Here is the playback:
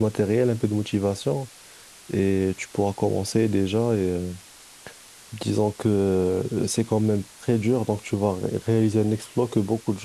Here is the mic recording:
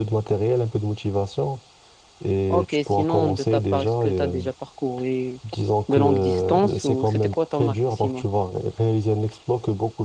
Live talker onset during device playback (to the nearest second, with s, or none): 2 s